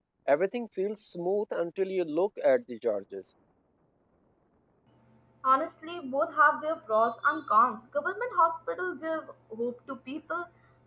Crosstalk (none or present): none